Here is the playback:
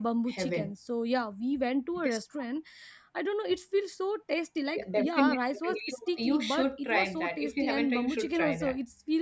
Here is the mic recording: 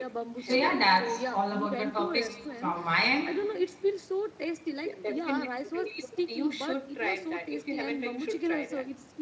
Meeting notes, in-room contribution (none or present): present